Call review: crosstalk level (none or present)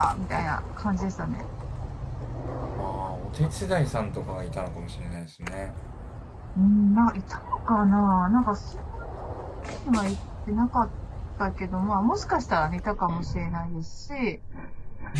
none